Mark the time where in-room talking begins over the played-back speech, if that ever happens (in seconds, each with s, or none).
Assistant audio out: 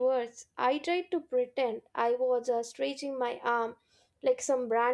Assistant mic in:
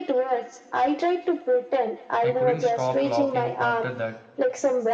2.2 s